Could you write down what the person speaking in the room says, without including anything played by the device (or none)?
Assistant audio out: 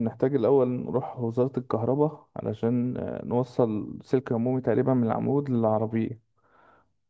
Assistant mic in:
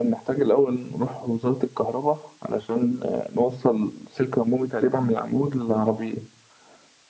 none